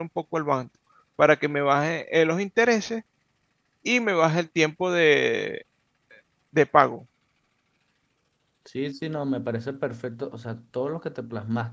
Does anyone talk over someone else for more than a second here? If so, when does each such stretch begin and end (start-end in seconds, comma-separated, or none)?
none